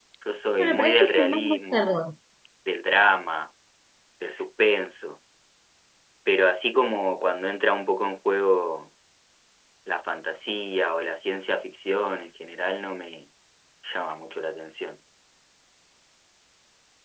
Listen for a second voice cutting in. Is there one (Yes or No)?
Yes